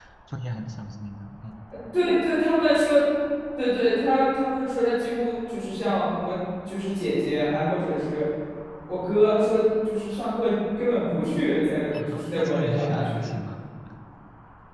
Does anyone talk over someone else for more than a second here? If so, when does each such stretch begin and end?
11.9-13.2

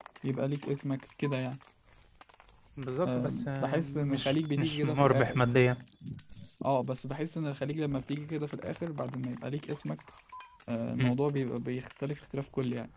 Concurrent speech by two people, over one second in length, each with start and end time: 3.0-5.4

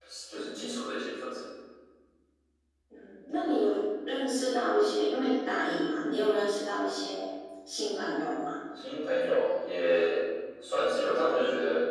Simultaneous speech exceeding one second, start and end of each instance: none

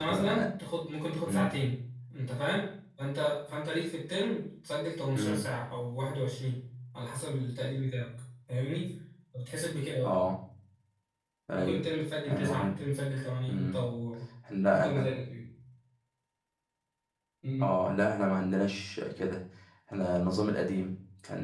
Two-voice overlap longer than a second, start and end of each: none

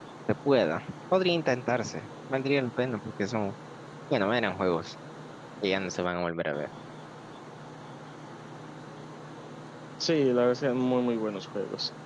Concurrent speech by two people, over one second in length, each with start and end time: none

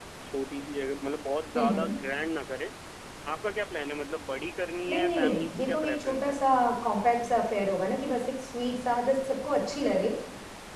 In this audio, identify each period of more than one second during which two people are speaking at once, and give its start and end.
4.9-6.4

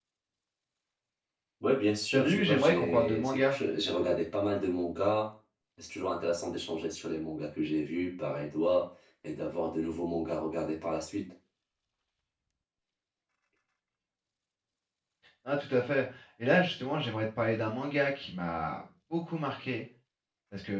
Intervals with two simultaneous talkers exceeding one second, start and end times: 2.1-3.6

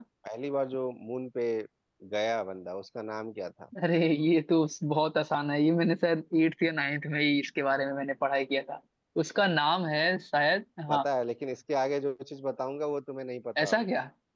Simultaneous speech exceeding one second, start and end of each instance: none

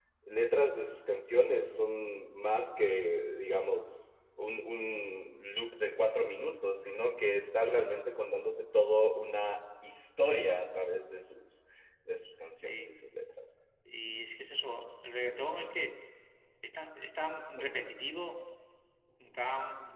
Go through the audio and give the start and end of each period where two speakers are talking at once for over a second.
none

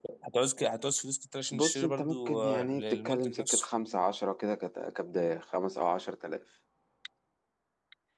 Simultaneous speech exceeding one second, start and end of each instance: 1.5-3.7

